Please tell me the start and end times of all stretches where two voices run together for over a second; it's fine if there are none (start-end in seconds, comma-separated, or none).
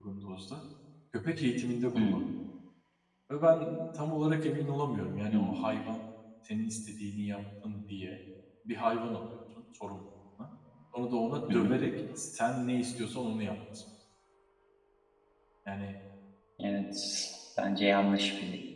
none